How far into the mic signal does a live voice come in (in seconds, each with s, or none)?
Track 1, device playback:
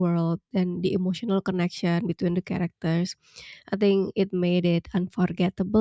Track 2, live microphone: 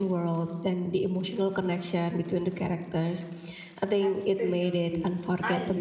4.0 s